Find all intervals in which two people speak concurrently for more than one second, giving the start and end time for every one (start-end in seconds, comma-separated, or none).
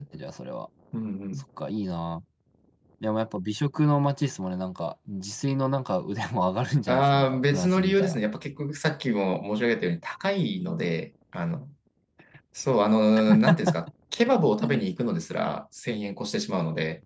6.9-8.2